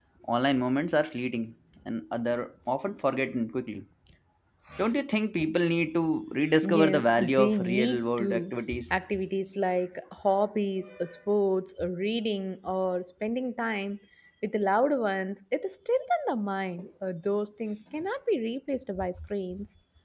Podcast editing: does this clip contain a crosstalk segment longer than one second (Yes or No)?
Yes